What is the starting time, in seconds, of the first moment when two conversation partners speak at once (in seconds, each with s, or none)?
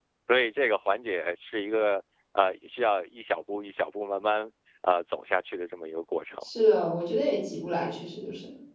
none